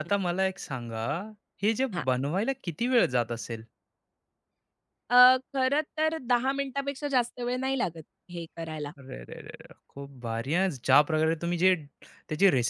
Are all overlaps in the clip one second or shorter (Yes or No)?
Yes